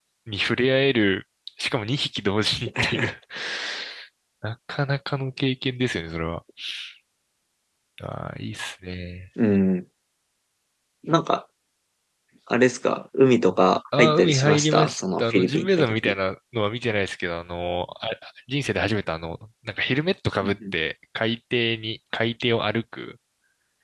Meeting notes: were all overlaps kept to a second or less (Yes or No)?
No